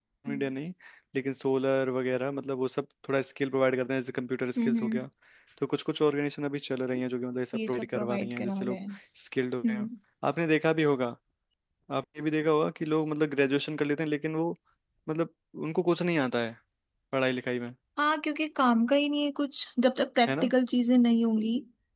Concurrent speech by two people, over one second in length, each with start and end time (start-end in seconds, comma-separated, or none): 7.5-8.8